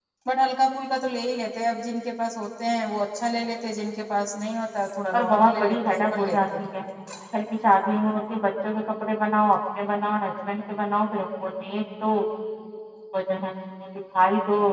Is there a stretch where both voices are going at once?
Yes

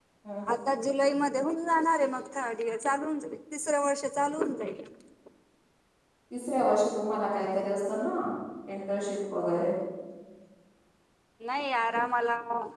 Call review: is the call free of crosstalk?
Yes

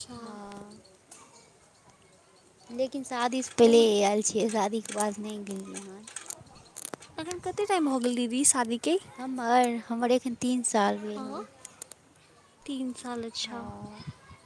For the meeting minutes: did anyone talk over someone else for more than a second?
No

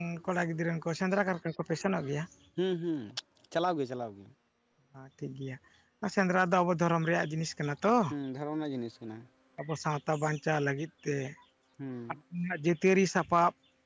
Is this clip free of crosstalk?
Yes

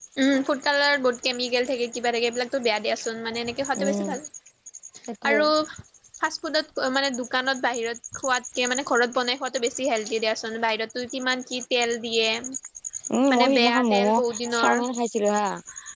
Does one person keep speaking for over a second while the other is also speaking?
Yes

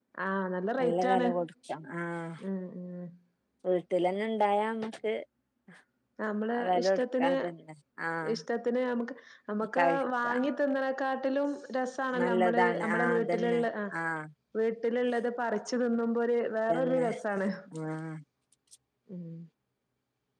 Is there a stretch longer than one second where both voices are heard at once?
Yes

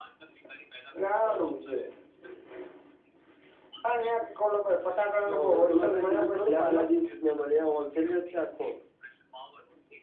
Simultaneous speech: Yes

